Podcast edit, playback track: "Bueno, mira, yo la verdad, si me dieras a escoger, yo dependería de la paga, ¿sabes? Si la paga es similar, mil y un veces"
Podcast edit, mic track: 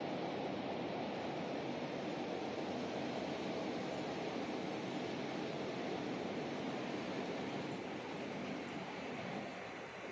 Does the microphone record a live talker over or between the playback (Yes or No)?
No